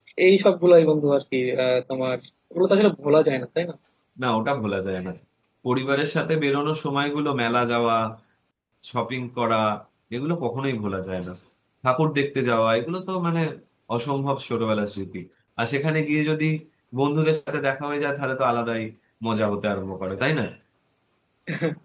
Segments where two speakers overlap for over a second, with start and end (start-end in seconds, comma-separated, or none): none